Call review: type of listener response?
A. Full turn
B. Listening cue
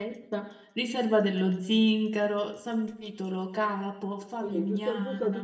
A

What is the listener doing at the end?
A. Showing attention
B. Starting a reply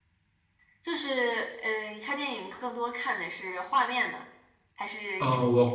B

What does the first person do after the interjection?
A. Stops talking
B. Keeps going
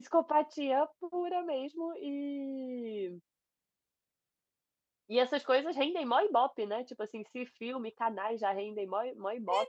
A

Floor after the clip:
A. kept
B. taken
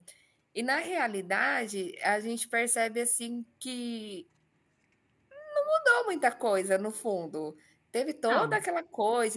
A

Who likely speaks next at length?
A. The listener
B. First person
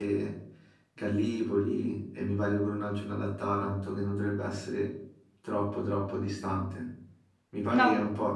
B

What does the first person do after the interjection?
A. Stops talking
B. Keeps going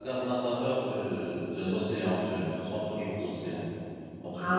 A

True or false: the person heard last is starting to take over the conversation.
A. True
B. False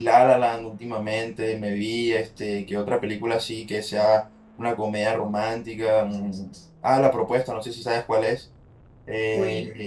B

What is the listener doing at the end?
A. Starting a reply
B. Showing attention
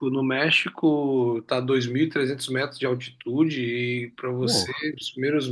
B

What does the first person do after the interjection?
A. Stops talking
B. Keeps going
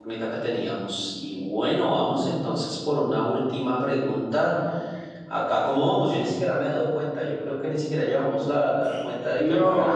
B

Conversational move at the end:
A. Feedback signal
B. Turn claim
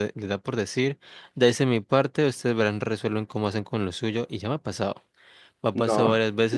A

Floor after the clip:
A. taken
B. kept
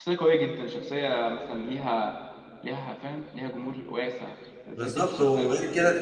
A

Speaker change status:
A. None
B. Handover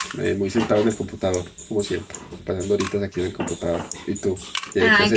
B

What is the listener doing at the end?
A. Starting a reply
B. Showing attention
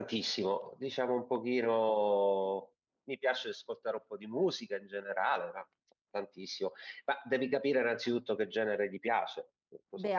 A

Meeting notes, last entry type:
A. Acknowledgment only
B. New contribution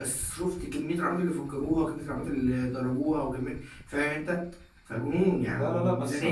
B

